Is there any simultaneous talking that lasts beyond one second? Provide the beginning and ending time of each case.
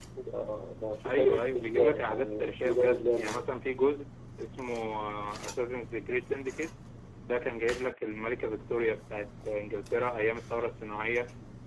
1.0-3.7

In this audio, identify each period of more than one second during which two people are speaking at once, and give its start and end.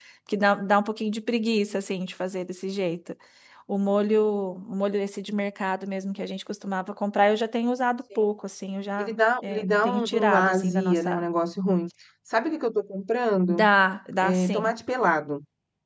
9.0-11.2

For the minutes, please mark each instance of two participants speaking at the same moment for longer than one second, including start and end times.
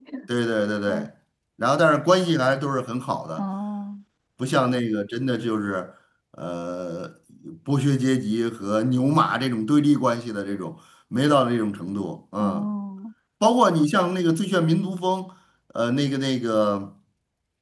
none

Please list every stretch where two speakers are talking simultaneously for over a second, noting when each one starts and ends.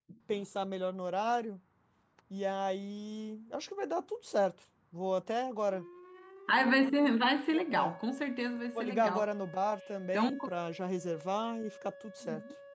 none

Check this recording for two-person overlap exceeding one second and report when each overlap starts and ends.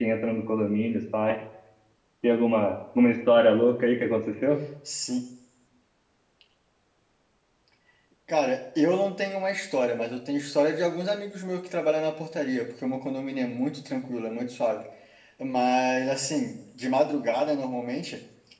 none

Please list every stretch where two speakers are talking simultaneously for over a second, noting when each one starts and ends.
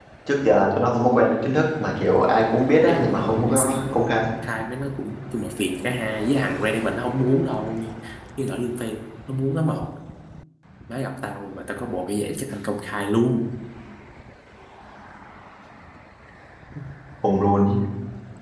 2.9-4.2

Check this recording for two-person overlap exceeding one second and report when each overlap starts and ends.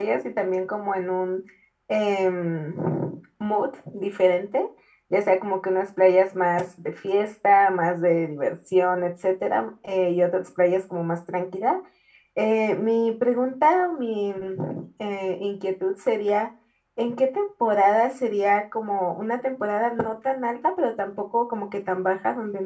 none

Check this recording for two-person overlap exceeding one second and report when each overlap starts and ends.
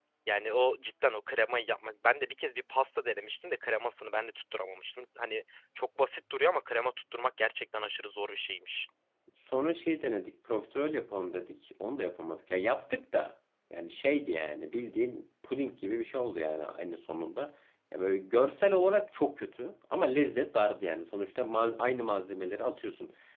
none

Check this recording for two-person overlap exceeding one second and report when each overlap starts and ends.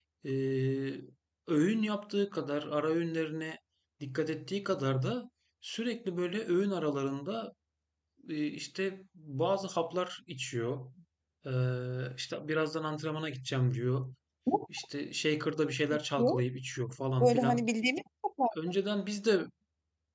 none

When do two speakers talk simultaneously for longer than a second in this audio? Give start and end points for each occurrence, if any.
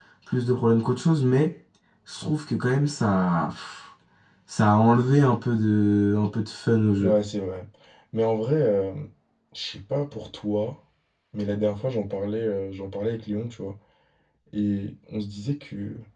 none

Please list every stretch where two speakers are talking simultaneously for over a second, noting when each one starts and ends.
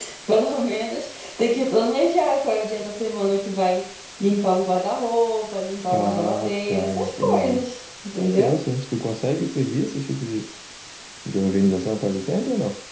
5.9-7.7

